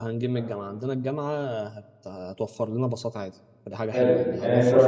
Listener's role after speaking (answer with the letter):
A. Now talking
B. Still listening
A